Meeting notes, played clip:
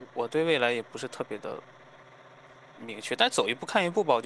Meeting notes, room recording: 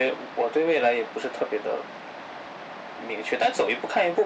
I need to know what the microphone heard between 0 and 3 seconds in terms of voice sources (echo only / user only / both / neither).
echo only